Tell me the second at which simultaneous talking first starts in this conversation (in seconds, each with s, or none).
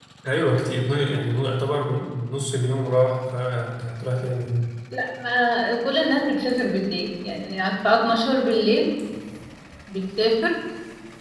none